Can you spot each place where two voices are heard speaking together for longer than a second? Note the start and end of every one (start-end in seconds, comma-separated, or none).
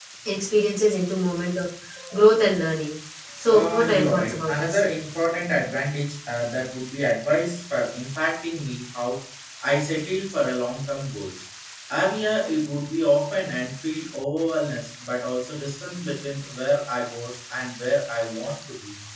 3.5-4.8